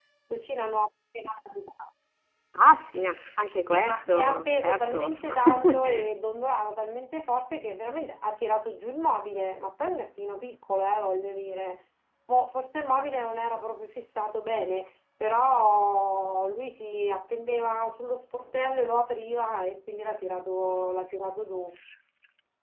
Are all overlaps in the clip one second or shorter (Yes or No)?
No